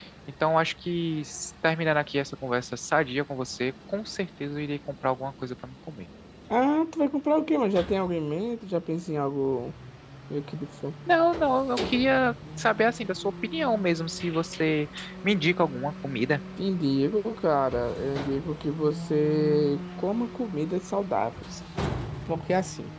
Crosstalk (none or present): none